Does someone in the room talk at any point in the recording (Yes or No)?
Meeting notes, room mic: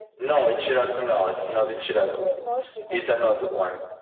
Yes